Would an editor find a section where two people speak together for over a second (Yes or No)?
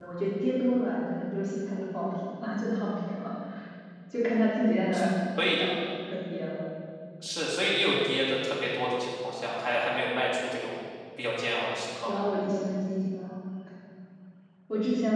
No